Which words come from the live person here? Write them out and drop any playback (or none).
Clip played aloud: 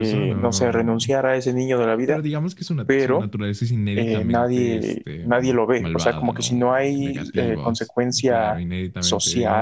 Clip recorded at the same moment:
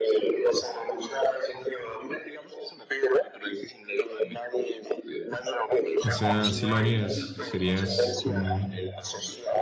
O sea, si lo harías, serías un,